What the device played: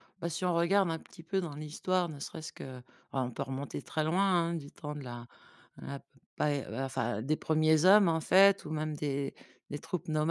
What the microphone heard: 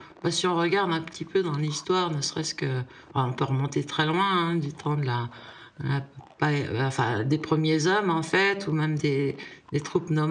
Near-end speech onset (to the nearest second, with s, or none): none